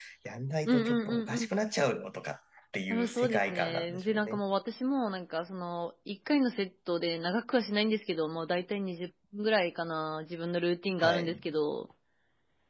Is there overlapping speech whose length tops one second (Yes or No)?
Yes